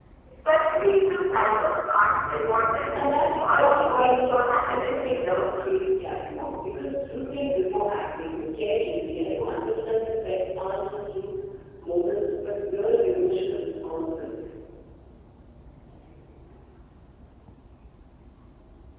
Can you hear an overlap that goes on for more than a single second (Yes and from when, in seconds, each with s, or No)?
Yes, from 2.9 s